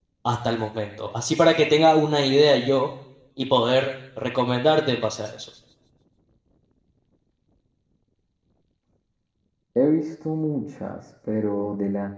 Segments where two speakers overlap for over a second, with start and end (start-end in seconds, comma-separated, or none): none